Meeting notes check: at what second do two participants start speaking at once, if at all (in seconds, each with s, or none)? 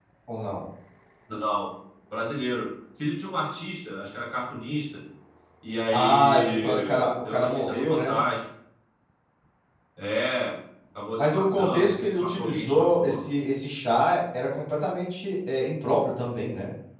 5.9 s